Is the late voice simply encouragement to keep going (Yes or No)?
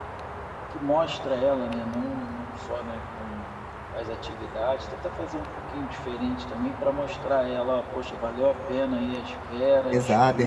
No